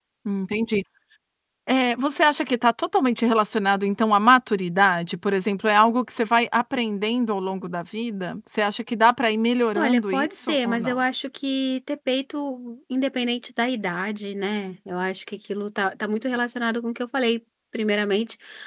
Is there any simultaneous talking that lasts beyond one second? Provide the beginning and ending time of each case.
9.8-11.0

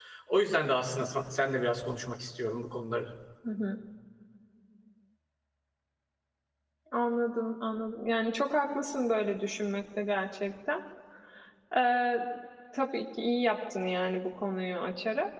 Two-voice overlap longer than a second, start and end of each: none

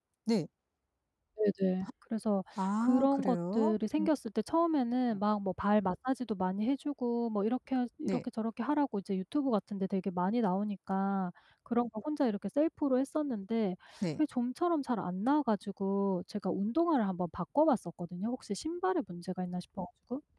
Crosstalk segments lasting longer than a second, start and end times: 2.8-4.1

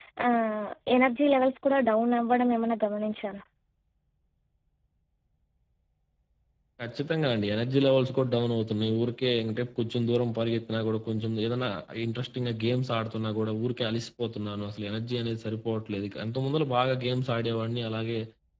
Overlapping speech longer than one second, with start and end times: none

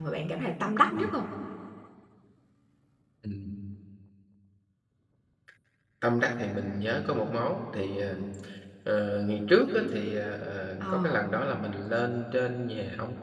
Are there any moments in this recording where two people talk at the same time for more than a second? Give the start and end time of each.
none

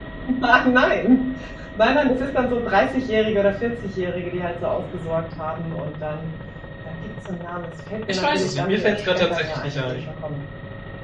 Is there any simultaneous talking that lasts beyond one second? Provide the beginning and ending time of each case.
8.1-10.1

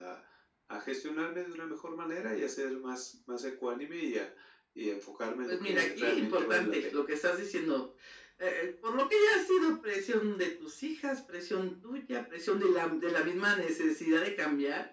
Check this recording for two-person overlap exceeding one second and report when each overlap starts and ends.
5.5-7.0

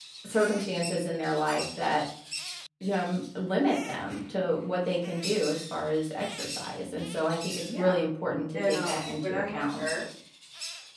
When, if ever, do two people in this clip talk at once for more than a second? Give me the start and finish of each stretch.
8.5-9.8

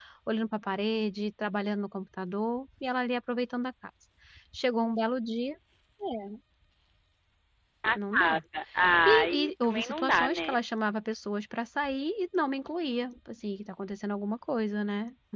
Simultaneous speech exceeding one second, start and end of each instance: 9.0-10.6

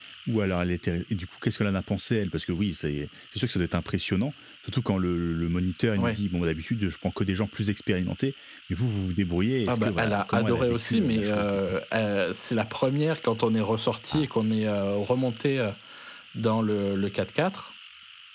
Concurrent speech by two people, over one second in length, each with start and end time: 9.7-11.5

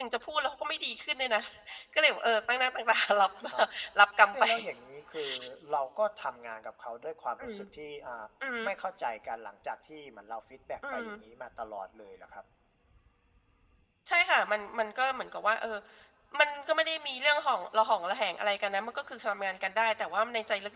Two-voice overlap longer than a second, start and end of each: none

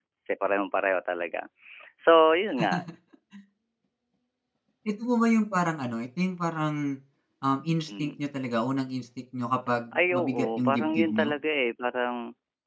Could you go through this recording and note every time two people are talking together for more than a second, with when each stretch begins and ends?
9.9-11.3

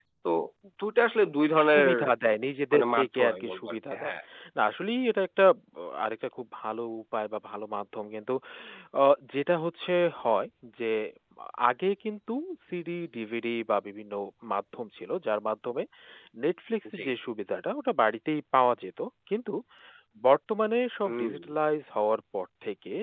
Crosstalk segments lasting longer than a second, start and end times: 2.7-4.1

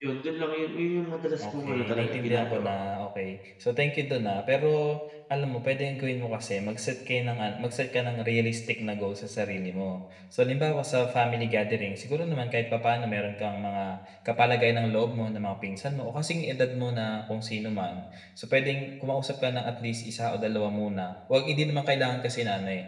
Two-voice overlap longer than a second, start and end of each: 1.4-2.7

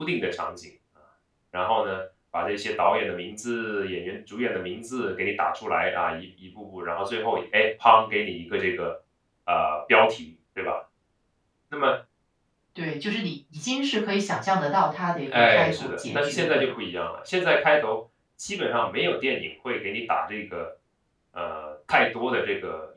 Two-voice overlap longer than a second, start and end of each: 15.3-16.7

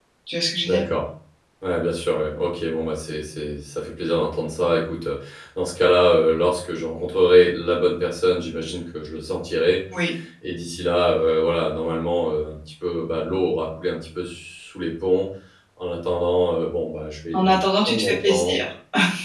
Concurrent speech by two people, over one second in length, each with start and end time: 17.3-18.6

